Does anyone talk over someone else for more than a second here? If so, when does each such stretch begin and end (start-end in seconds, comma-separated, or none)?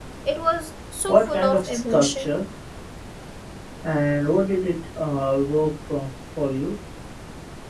1.1-2.3